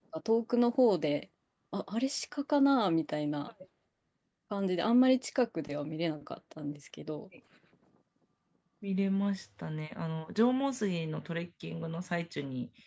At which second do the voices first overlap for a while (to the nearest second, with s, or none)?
none